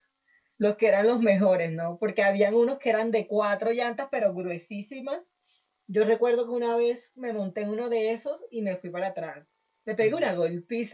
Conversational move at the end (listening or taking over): listening